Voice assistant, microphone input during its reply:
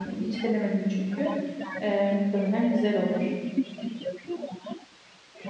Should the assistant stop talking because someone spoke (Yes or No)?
Yes